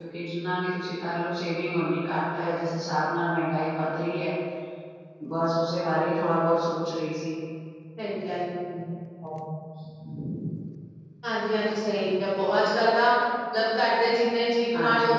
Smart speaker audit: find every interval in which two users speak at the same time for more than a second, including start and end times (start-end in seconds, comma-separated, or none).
none